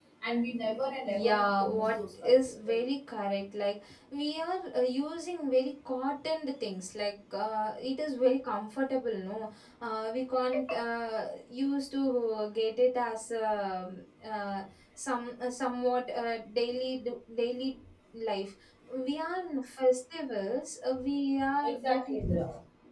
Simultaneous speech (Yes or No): Yes